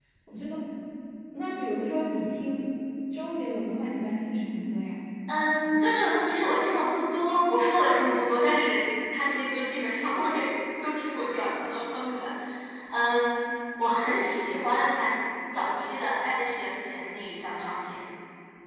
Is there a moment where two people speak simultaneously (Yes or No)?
No